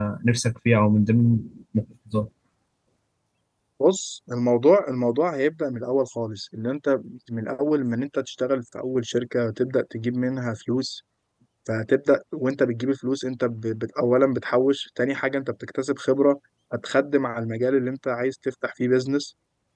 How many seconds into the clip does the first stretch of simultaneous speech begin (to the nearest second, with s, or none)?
none